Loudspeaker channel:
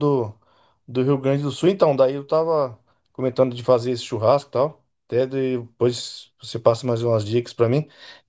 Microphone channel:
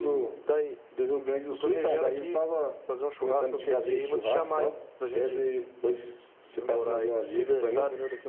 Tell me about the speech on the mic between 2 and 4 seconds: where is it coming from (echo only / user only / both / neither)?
both